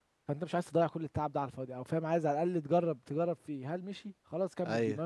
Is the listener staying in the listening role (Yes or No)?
Yes